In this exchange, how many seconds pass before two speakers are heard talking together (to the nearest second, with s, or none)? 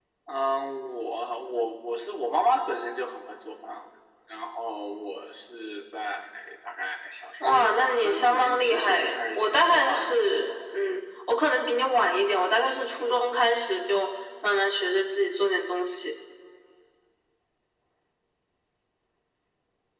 7 s